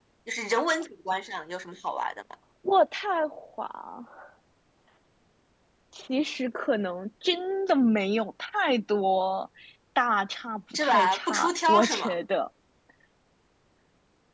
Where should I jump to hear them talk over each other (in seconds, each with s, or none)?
10.7 s